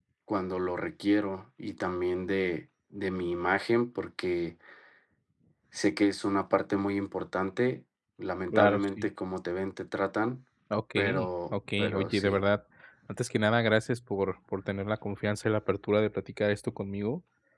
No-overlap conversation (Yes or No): No